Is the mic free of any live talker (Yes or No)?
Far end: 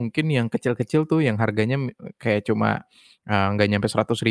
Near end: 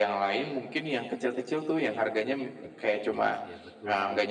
No